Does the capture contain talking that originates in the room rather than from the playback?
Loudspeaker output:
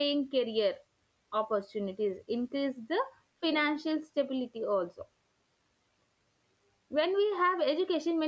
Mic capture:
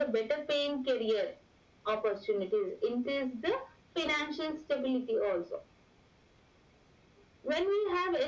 No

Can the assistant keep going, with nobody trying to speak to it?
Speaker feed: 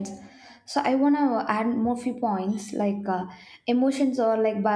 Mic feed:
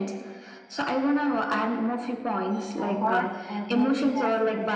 No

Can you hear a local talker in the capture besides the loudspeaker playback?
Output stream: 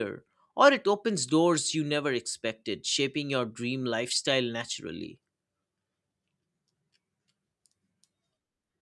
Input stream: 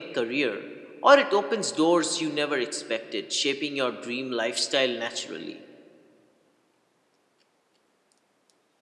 No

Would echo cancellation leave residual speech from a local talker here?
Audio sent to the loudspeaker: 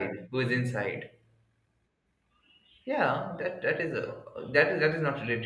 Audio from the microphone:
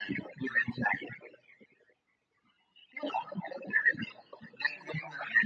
No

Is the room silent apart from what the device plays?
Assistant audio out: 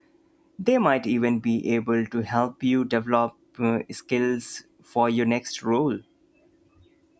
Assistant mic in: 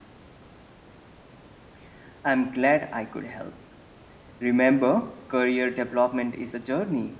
No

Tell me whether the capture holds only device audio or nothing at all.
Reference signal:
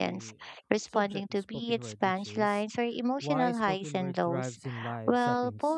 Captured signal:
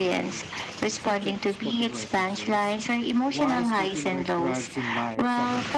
Yes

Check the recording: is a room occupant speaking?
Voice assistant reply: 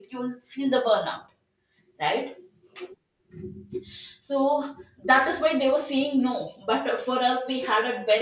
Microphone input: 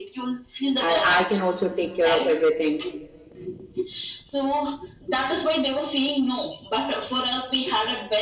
Yes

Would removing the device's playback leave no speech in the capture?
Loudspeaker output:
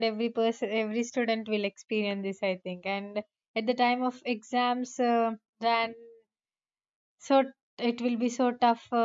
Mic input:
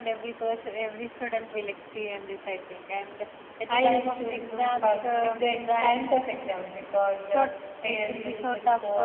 No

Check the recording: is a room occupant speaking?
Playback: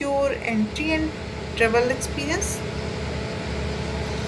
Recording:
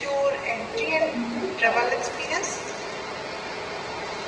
Yes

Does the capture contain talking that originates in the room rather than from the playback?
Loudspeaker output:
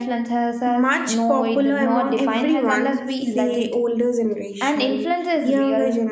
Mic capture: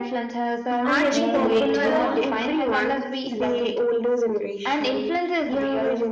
Yes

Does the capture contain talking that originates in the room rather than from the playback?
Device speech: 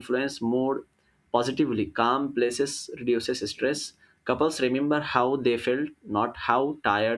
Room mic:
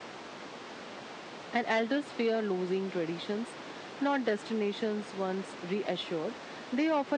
Yes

